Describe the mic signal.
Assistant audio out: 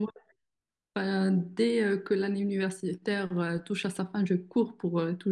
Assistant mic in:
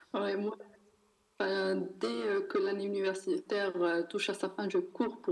echo only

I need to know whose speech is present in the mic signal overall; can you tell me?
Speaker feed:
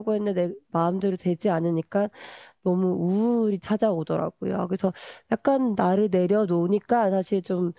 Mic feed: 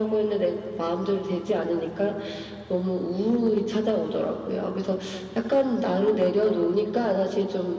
echo only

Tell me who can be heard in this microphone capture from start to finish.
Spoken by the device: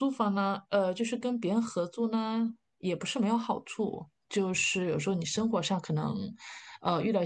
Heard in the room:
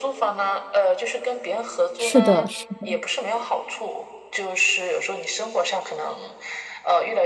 both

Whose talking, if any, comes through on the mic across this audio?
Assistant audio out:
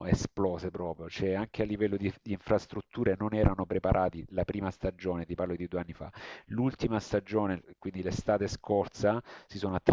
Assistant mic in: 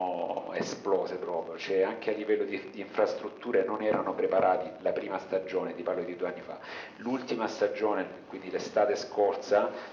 echo only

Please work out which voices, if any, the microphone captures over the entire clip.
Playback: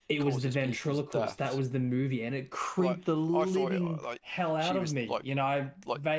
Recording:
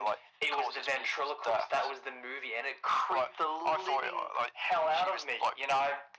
echo only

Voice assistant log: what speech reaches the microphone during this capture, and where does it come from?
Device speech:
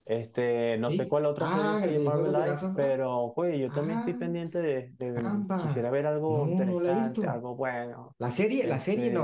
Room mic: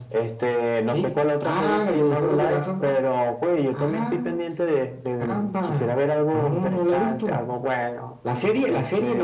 echo only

